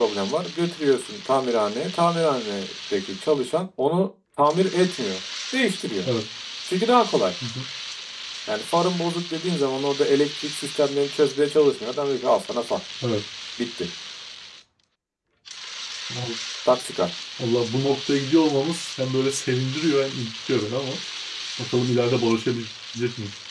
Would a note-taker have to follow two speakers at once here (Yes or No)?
No